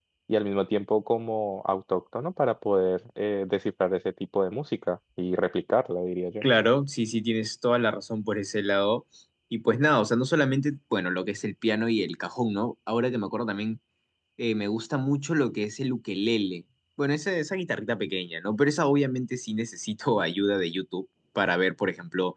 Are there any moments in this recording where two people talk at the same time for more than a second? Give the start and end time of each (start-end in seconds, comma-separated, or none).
none